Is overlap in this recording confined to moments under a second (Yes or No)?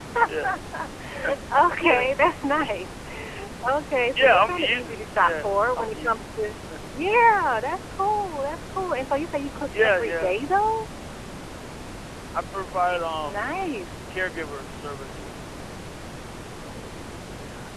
No